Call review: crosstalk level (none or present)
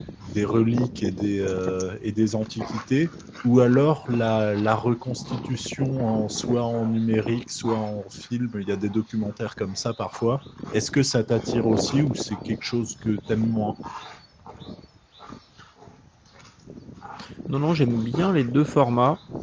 none